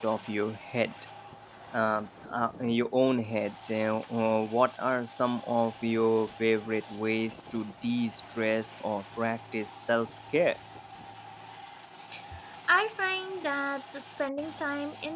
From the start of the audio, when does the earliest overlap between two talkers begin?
none

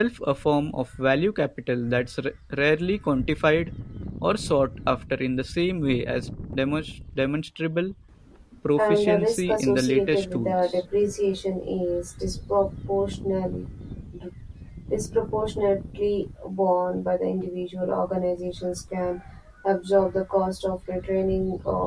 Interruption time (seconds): 8.8 s

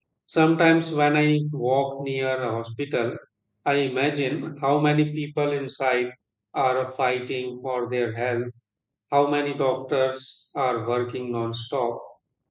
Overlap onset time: none

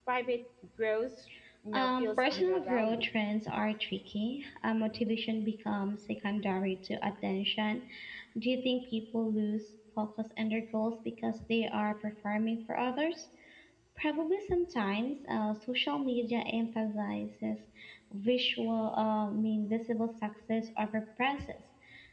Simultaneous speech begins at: 1.7 s

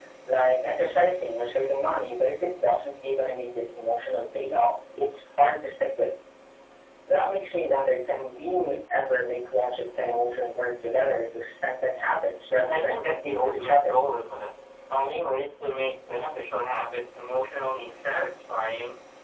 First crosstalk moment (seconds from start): 12.5 s

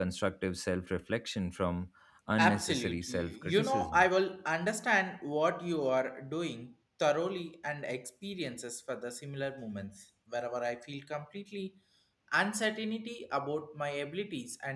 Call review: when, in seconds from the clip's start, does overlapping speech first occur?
2.4 s

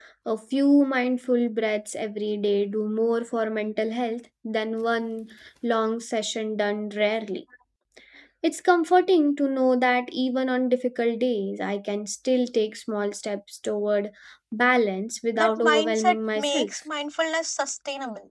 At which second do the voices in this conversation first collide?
15.4 s

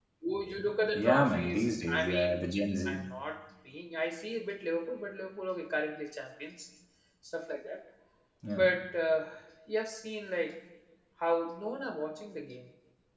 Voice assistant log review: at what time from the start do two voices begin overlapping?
0.9 s

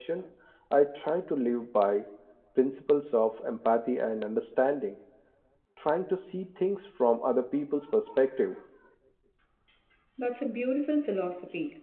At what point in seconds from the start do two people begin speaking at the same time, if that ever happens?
none

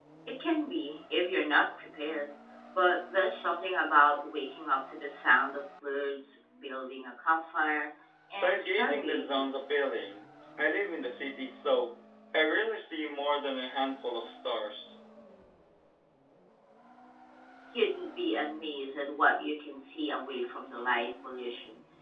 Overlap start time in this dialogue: 8.3 s

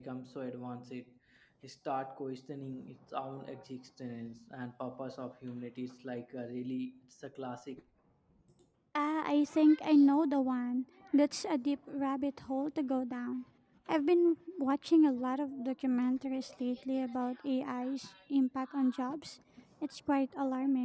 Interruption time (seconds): none

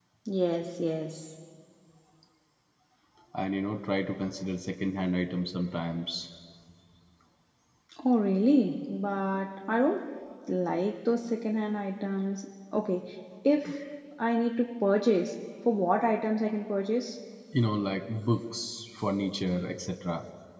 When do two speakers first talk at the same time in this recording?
none

